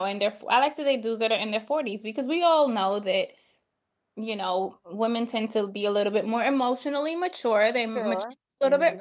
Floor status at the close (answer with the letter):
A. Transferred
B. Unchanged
B